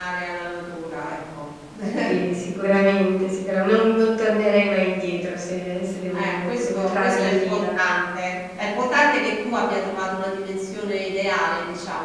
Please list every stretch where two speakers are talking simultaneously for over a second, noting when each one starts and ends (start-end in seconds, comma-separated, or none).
6.1-7.6